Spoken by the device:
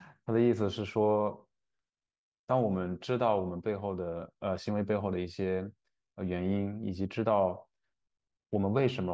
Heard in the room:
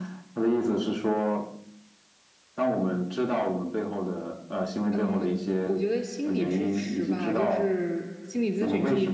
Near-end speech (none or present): present